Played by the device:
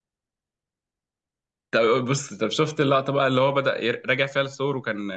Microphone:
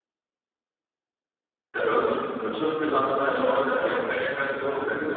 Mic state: both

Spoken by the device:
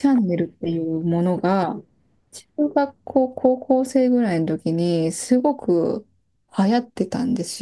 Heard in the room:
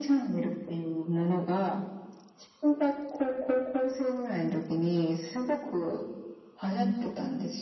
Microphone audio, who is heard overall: echo only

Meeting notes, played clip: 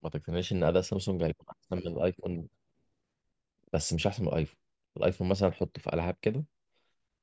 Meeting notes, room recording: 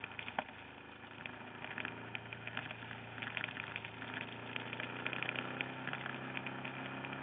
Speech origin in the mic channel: neither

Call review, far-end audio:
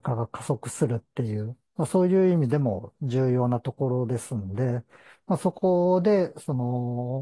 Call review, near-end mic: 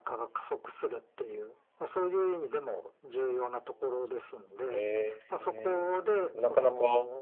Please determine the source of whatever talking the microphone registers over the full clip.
both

